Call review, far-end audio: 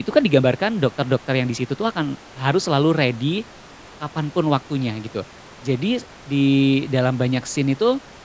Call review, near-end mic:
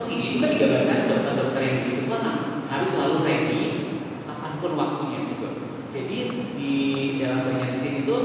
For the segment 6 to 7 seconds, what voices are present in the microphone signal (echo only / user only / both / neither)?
echo only